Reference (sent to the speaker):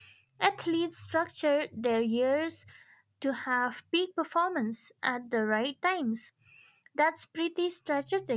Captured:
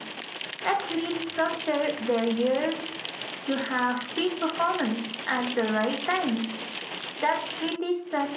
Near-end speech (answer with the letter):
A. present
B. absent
B